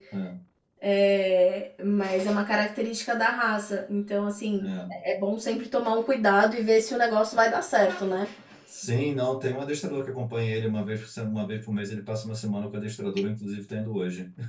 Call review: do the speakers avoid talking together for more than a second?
Yes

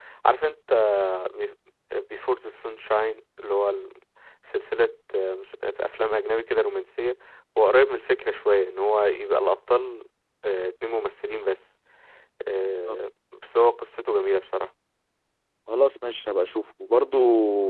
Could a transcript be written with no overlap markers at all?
Yes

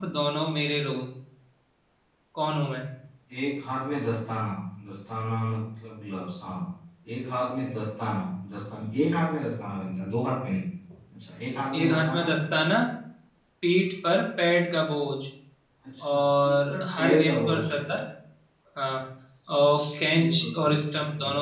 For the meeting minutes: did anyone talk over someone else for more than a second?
Yes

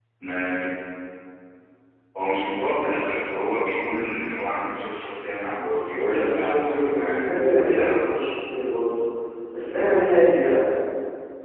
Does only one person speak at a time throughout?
No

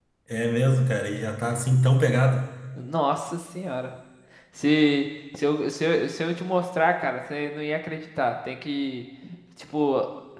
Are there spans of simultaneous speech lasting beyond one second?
No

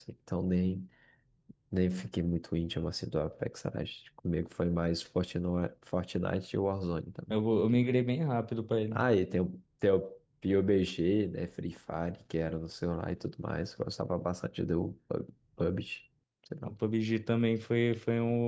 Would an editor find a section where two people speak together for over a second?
No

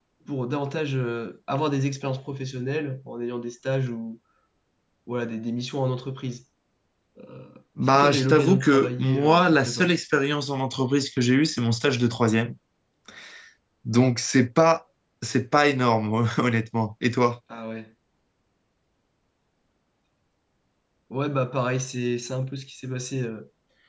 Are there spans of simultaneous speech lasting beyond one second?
Yes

